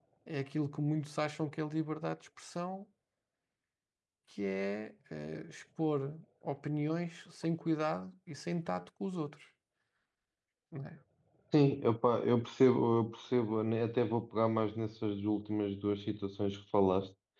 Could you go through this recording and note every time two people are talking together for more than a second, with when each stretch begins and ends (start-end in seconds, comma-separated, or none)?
none